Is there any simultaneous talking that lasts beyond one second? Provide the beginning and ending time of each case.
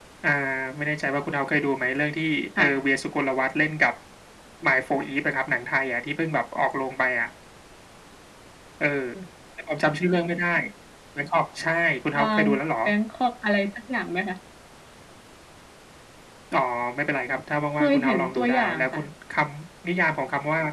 17.8-19.1

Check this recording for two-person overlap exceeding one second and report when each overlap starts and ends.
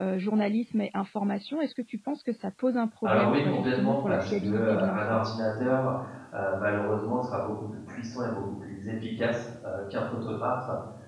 3.0-5.0

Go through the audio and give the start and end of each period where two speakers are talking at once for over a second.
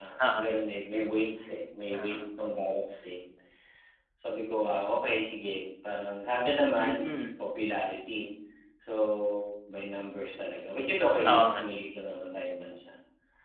none

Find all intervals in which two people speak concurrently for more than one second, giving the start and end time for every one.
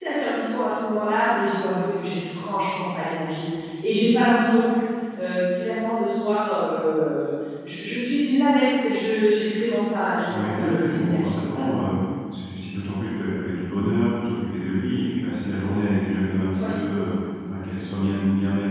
10.3-11.7

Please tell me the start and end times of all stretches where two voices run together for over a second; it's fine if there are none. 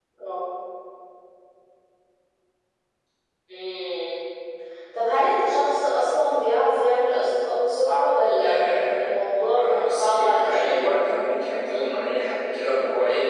9.5-10.8

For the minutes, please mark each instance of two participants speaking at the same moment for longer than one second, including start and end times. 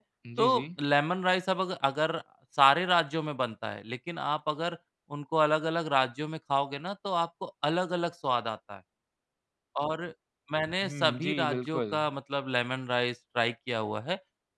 10.8-12.0

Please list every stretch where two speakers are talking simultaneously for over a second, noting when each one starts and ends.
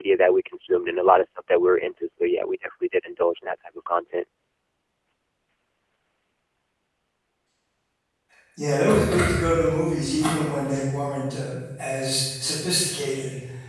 none

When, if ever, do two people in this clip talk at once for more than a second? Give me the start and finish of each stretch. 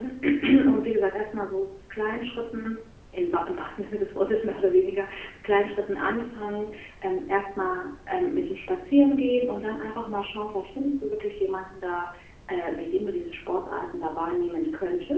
none

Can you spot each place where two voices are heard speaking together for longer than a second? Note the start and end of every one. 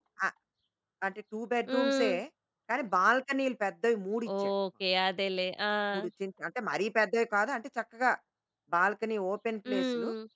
none

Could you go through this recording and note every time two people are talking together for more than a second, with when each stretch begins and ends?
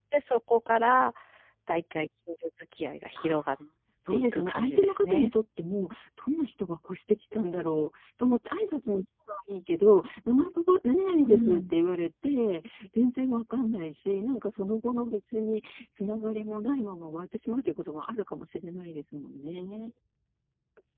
4.1-5.3

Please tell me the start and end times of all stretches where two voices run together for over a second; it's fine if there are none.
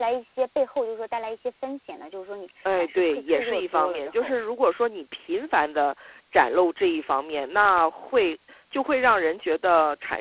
2.8-4.4

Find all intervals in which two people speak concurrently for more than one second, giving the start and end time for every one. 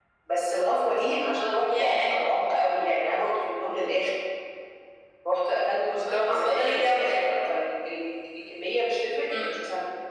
6.1-7.3

